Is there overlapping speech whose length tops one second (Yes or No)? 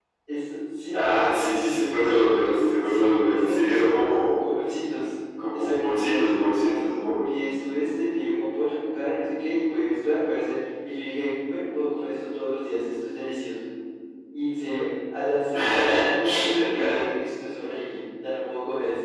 Yes